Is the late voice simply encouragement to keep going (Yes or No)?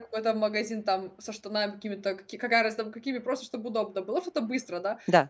Yes